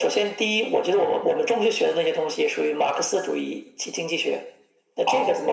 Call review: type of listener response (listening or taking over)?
listening